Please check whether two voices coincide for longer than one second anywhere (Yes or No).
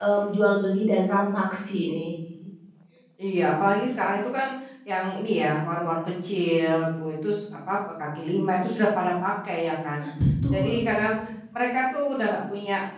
No